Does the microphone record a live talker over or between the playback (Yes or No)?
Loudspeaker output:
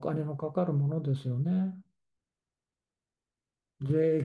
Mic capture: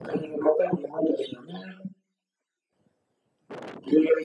No